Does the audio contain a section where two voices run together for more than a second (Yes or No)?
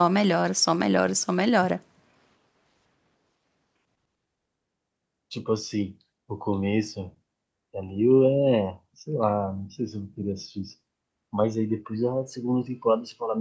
No